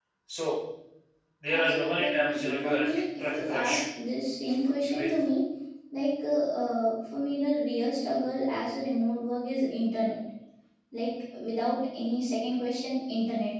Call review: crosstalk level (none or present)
present